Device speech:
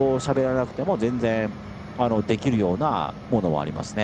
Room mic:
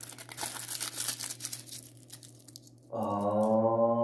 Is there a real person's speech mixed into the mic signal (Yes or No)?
Yes